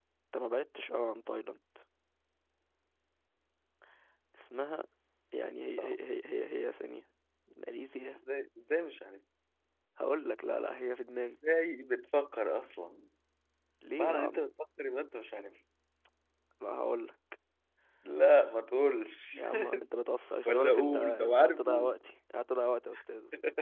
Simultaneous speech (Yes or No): Yes